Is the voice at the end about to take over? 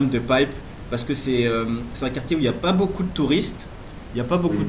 No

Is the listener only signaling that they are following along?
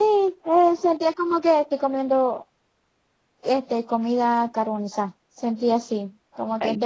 Yes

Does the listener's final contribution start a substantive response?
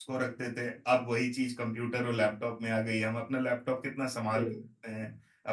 No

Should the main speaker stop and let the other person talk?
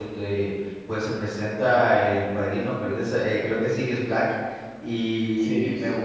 No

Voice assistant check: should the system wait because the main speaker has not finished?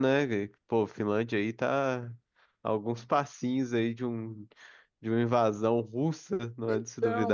No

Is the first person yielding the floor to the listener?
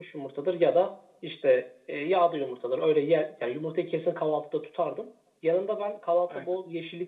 No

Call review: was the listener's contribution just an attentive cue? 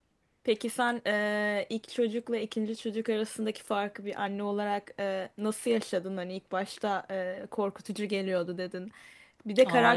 Yes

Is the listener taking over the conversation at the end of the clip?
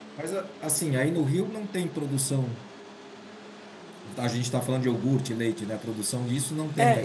Yes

